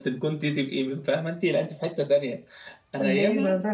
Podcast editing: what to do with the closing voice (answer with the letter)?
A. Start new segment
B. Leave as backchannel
B